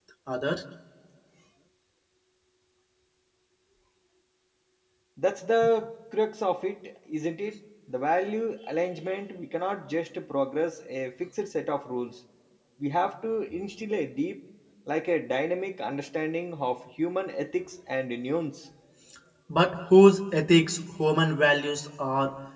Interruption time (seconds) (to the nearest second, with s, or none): none